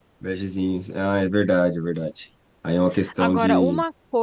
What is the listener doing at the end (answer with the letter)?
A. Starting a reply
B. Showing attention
A